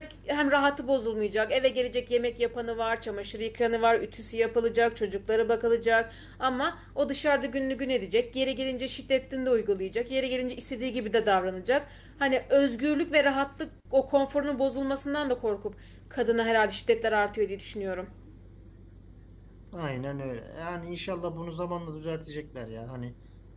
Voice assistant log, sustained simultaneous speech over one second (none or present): none